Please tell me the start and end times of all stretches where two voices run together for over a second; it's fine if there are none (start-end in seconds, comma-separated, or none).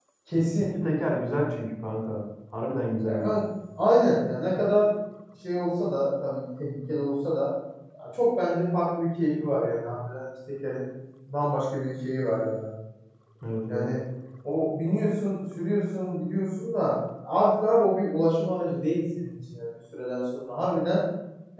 none